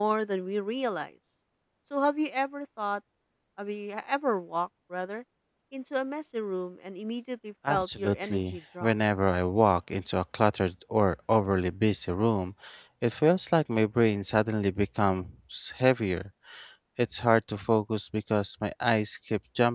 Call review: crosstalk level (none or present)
present